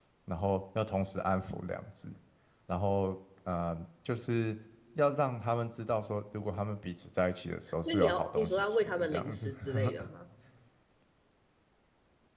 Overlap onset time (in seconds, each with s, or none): 7.8 s